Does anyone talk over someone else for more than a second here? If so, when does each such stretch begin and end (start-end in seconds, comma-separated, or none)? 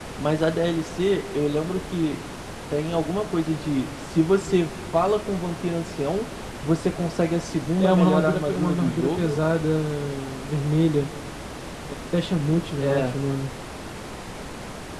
7.8-9.4